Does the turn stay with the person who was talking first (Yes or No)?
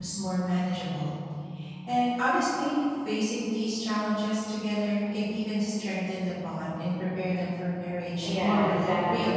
No